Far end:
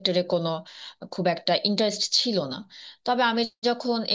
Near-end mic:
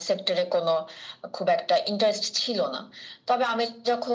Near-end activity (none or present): none